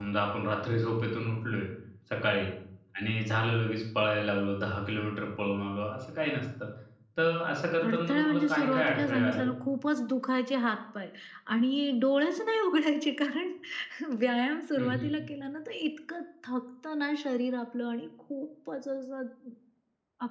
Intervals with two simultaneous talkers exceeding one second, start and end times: 7.9-9.4

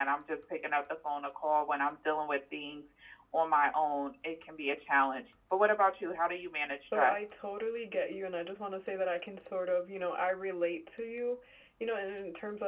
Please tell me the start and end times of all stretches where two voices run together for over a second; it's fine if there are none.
none

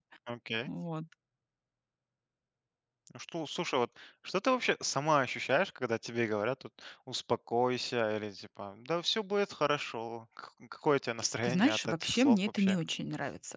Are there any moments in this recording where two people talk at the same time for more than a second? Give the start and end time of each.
11.4-12.8

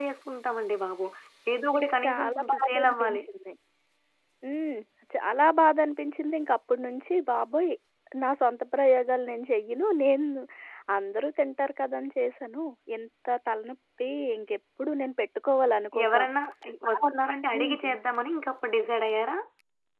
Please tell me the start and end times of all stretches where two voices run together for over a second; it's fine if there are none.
1.6-3.2

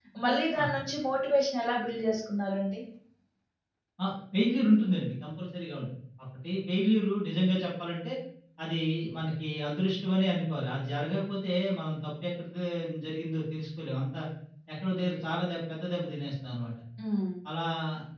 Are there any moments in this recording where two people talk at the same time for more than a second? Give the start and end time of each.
none

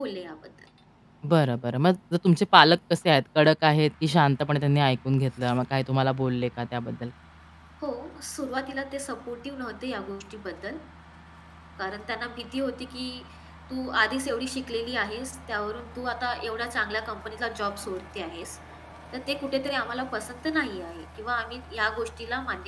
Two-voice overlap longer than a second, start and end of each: none

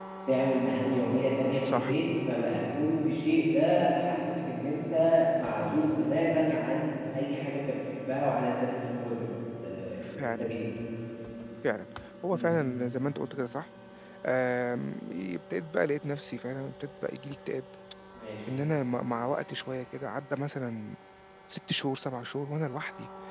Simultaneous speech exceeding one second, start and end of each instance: none

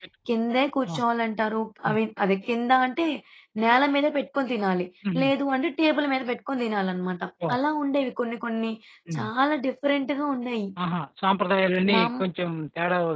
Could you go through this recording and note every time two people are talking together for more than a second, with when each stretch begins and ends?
none

